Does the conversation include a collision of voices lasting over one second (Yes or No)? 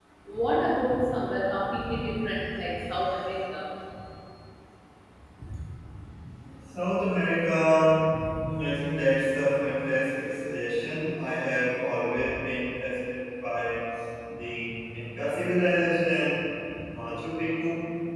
No